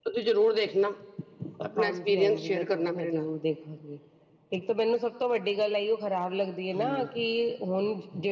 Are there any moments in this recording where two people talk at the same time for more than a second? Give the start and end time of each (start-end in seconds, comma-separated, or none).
1.8-3.3